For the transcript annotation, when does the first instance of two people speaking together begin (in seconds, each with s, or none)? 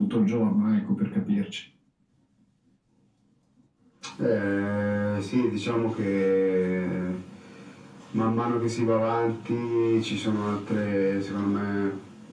none